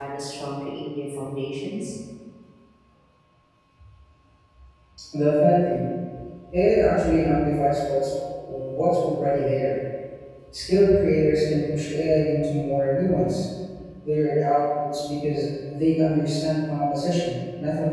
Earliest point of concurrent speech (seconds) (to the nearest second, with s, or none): none